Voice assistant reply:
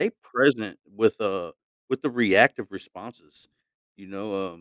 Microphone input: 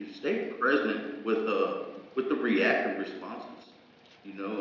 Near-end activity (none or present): none